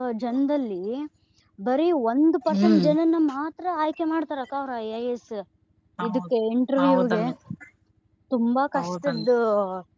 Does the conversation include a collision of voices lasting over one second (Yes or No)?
No